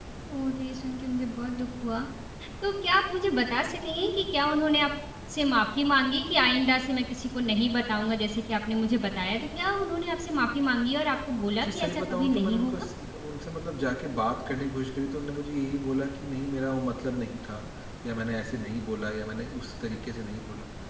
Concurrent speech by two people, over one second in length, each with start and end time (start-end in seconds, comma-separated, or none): 11.6-12.8